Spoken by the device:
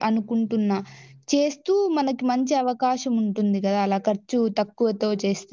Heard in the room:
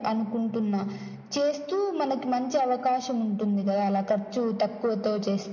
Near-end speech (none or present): none